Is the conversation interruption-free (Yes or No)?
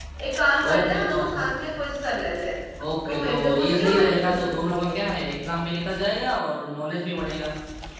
No